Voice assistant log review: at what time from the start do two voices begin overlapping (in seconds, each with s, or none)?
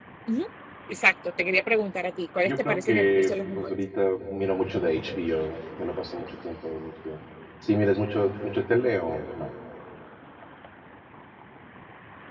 2.5 s